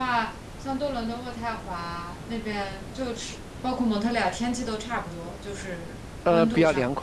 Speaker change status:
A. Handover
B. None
A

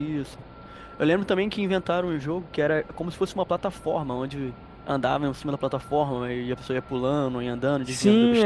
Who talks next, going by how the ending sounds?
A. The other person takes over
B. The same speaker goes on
A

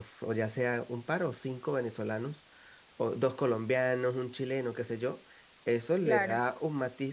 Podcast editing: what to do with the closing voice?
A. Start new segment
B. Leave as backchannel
B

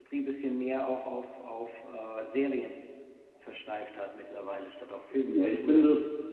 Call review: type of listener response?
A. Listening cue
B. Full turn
B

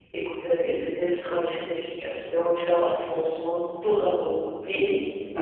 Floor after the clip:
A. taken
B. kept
B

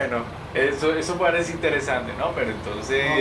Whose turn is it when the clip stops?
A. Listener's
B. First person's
A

